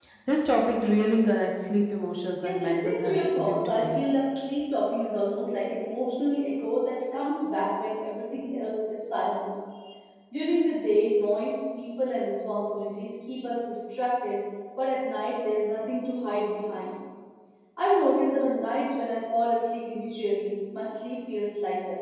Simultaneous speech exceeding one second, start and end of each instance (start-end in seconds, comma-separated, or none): 2.4-4.0